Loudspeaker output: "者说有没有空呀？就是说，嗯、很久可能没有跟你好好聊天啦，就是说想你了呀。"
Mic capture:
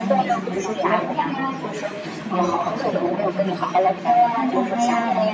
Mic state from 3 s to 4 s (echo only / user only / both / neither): both